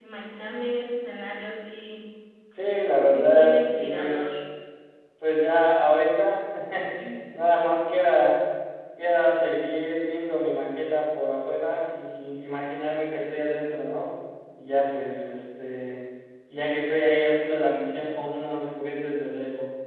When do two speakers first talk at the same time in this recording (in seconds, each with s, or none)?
3.1 s